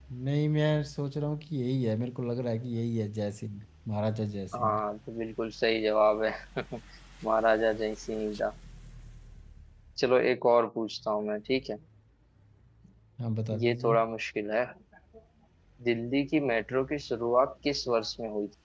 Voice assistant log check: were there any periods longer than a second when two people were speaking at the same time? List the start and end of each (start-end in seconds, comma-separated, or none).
none